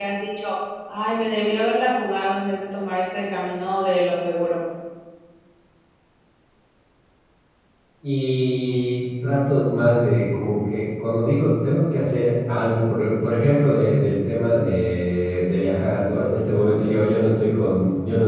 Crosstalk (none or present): none